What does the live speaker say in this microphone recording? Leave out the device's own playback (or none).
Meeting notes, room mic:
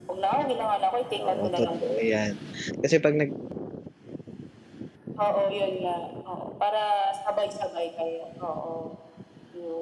Oo totoo yan. Kasi pag nag